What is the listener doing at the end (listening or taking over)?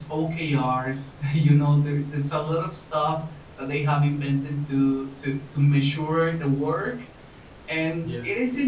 listening